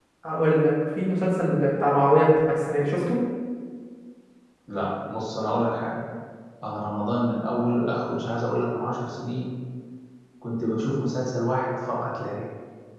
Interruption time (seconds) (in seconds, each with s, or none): none